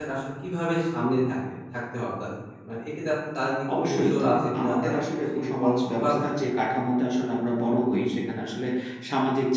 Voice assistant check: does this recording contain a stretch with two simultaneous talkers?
Yes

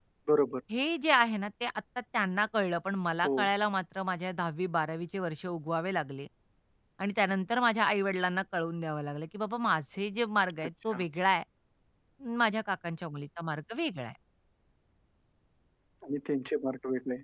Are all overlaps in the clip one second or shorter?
Yes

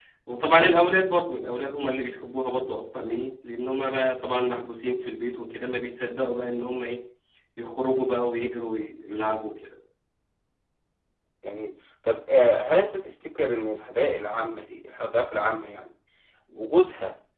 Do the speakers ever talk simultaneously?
No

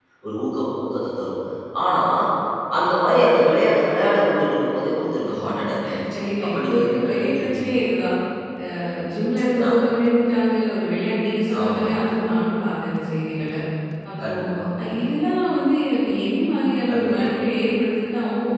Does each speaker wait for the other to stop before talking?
No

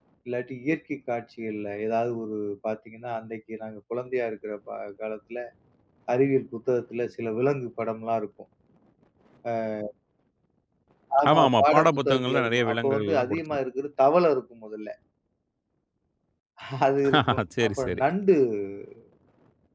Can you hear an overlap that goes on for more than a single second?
Yes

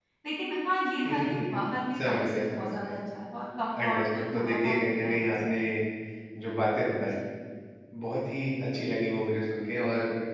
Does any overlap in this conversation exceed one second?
Yes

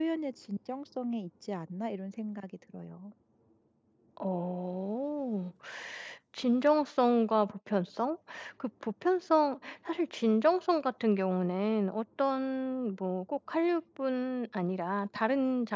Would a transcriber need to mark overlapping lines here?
No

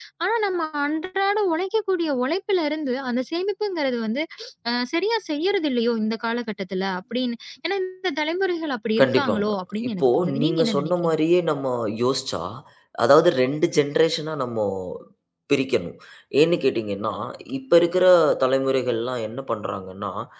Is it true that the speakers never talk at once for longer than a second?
No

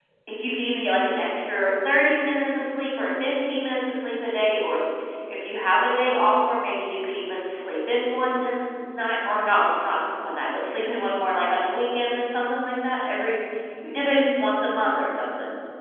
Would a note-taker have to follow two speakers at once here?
No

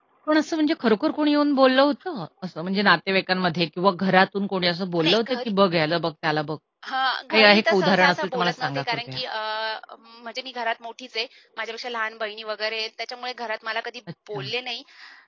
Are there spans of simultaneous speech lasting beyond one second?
Yes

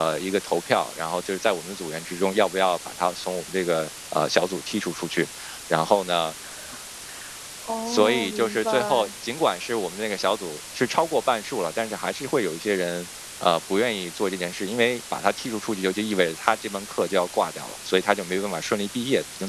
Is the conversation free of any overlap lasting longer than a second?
No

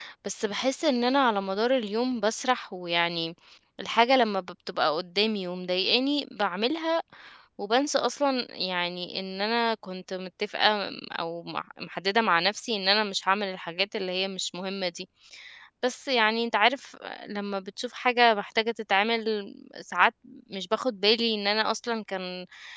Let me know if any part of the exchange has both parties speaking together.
No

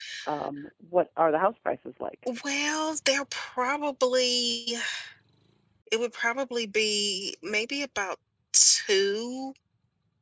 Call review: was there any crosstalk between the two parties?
No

